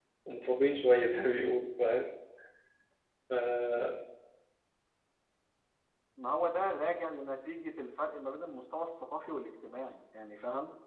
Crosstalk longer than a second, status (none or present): none